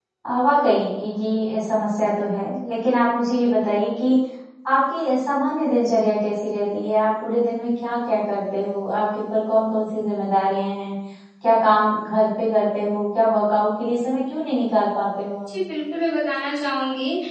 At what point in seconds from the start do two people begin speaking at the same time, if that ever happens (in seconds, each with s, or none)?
none